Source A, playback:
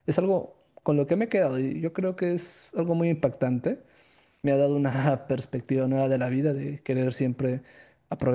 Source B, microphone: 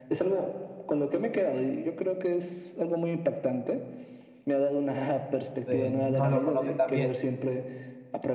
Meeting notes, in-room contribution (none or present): present